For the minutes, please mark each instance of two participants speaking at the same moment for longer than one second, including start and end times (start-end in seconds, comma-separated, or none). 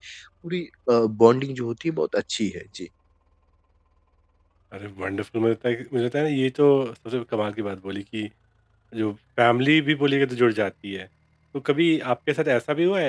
none